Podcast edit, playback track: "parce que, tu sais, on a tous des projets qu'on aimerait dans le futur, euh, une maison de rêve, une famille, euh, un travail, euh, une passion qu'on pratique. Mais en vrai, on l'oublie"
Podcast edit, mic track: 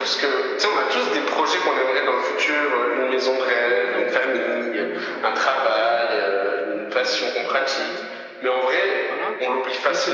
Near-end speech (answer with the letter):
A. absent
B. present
B